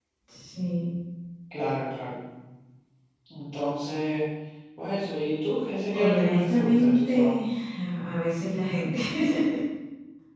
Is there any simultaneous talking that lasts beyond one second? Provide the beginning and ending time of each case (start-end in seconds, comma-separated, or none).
5.9-7.4